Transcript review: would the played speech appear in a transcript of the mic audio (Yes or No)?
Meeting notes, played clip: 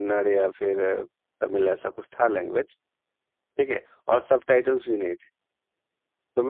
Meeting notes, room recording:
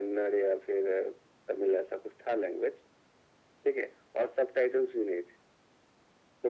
Yes